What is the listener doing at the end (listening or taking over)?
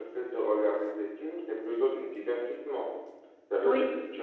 listening